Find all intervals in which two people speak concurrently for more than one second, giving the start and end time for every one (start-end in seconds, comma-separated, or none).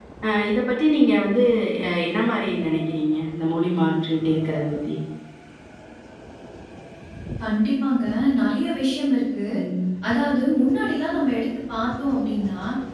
none